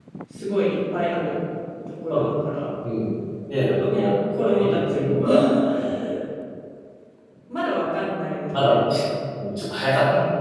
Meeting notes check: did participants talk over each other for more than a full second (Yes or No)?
Yes